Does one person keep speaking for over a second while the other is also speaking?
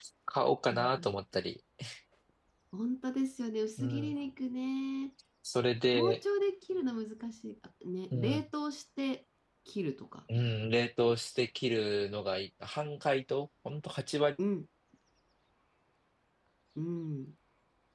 No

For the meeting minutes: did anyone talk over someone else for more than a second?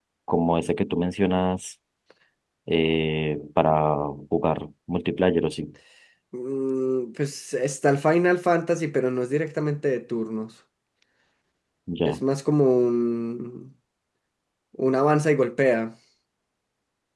No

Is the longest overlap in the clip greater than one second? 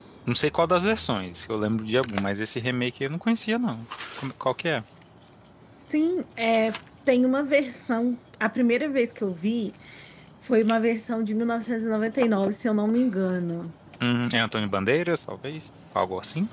No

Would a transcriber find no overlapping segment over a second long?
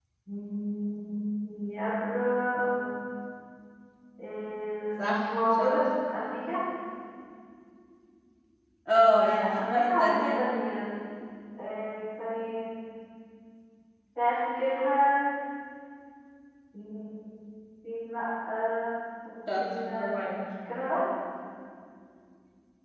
No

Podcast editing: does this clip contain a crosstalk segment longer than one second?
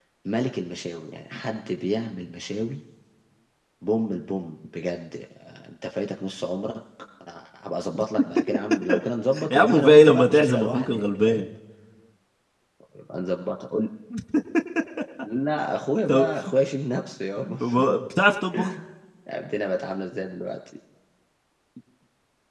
Yes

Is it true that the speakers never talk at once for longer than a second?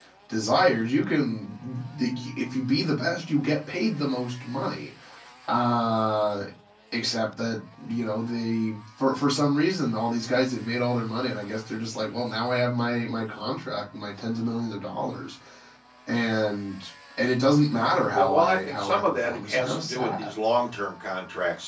No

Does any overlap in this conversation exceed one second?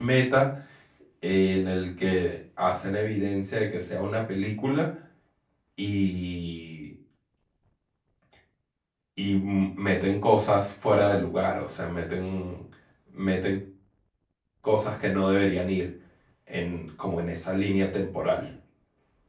No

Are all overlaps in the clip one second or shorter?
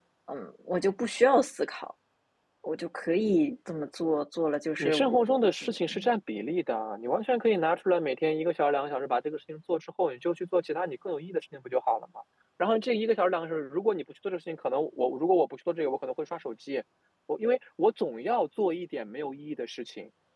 Yes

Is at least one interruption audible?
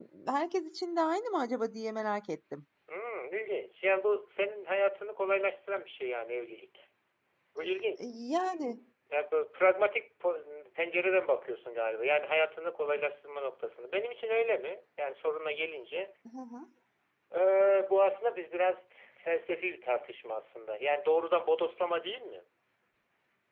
No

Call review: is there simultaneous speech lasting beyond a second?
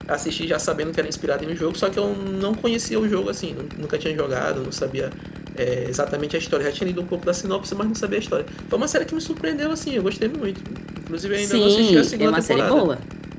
Yes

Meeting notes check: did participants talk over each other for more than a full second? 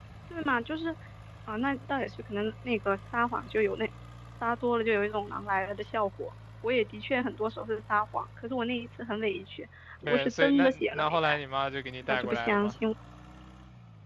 Yes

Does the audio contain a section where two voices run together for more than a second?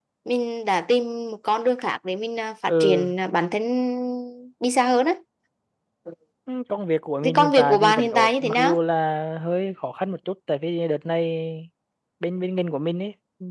Yes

